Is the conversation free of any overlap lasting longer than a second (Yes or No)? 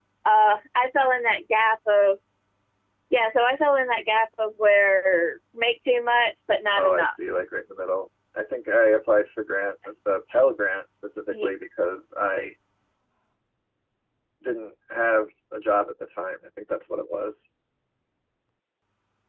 Yes